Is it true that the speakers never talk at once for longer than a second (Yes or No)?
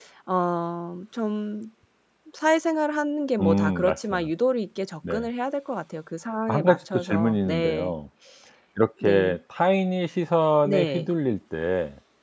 No